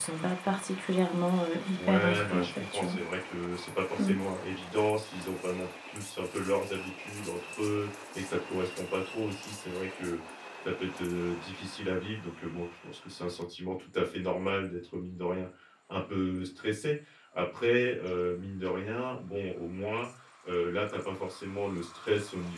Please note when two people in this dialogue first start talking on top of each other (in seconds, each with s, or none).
1.8 s